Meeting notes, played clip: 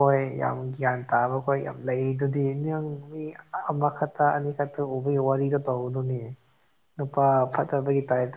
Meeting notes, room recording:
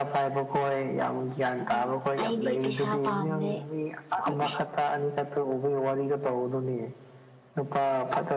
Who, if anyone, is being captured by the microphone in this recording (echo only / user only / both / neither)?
both